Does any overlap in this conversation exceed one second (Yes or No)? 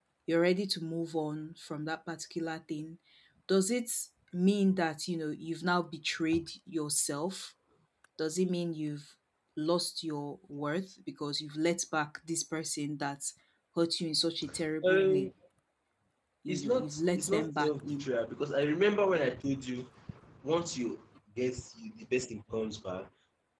Yes